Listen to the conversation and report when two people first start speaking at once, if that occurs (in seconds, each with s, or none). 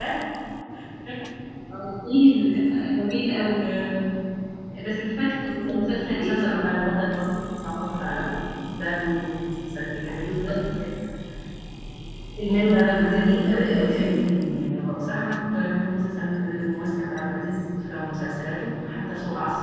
5.5 s